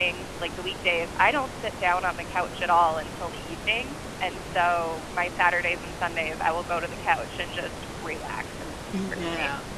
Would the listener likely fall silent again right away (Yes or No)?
No